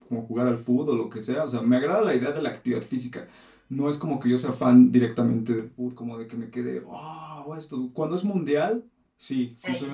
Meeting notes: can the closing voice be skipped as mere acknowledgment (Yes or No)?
Yes